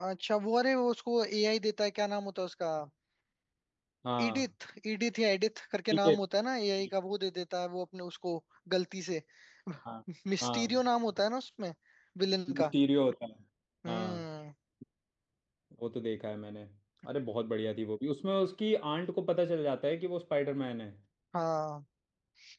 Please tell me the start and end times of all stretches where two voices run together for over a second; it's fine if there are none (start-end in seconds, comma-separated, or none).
none